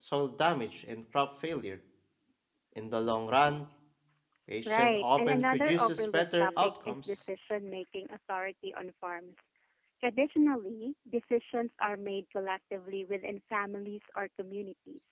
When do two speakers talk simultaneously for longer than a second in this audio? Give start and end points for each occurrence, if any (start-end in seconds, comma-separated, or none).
4.7-7.2